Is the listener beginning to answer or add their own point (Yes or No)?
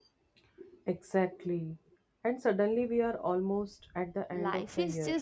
Yes